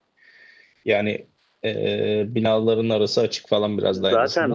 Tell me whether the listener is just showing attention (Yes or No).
No